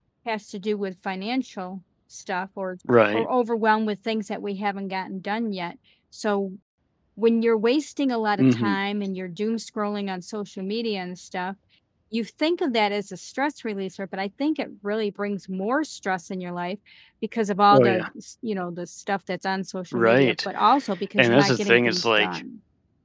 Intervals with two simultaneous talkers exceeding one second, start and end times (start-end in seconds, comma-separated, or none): 21.2-22.4